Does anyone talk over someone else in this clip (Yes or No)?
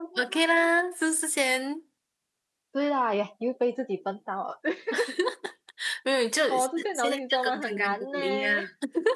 Yes